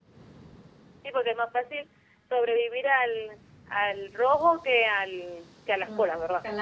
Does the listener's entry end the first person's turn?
Yes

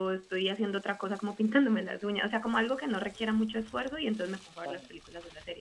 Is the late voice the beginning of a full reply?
No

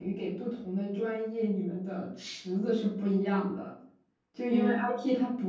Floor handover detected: No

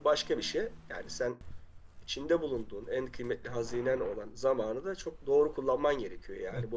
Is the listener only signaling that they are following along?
No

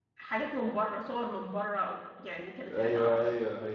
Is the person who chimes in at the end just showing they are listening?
No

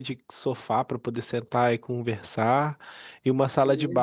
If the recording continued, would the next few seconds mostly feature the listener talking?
No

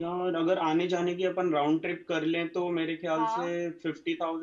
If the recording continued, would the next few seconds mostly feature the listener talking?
No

